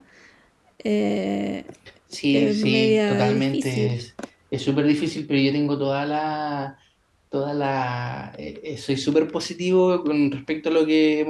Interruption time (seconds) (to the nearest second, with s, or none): 2 s